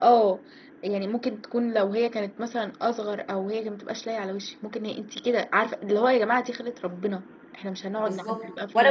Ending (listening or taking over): taking over